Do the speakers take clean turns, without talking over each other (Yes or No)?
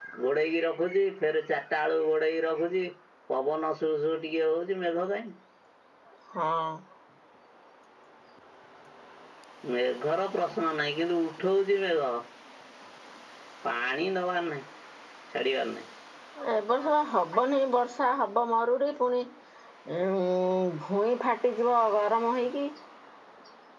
Yes